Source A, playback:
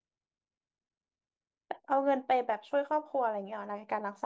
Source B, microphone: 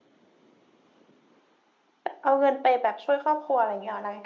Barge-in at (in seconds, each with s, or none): none